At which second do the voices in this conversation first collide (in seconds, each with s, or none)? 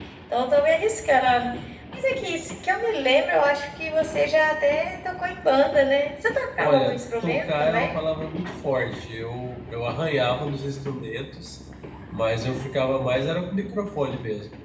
6.6 s